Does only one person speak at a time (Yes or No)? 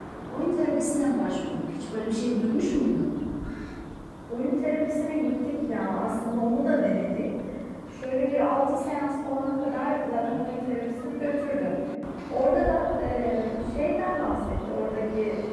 Yes